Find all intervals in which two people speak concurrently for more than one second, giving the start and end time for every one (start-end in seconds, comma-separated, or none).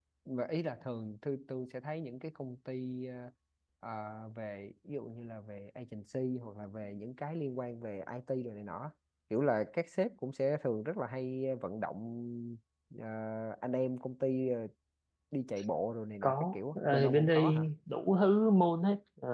16.2-17.6